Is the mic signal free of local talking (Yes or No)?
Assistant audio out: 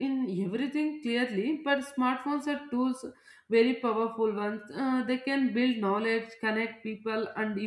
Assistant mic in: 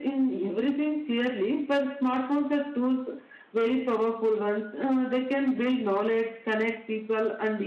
Yes